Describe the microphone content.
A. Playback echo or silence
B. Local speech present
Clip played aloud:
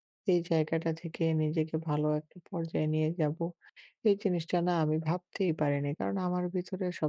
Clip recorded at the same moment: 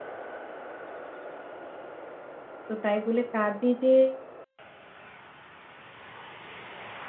B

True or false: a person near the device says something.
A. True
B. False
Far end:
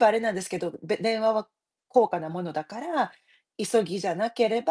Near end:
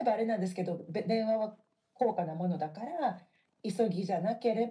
B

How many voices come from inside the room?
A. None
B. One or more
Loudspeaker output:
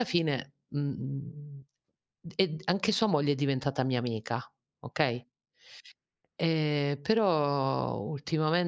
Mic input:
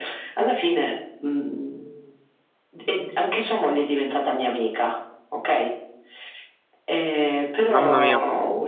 B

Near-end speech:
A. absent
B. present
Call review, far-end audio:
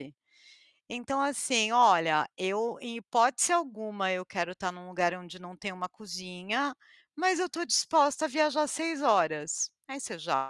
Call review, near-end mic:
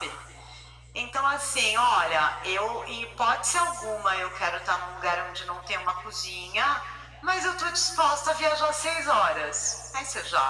A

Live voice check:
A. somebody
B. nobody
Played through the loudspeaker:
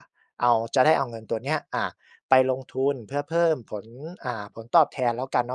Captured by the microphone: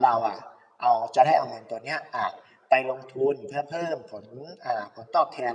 B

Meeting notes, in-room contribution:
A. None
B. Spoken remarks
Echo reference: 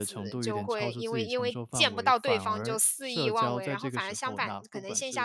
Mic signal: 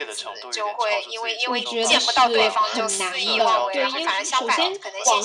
B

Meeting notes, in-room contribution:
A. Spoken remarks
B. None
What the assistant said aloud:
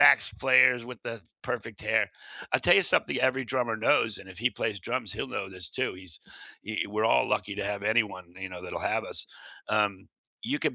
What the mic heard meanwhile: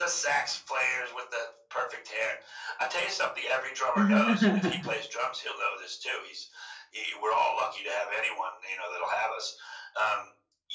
A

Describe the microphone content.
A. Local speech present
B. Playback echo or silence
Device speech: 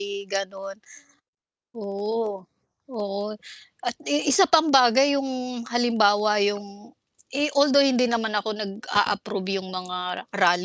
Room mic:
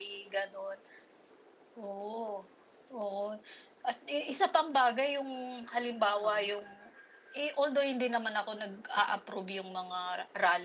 A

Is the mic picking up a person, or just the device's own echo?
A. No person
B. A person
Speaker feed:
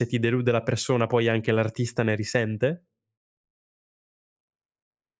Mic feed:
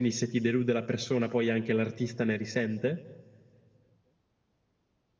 A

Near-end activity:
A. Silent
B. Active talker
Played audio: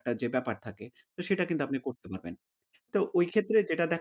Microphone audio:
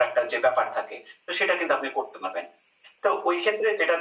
A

